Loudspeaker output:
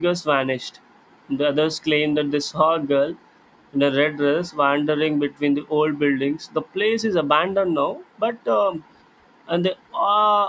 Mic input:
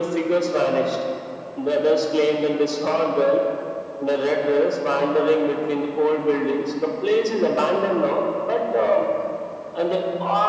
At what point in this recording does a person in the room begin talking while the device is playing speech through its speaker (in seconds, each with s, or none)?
none